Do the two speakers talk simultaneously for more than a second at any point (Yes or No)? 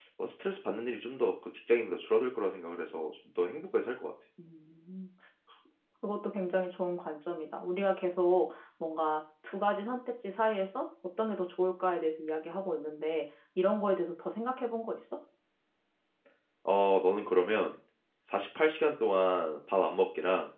No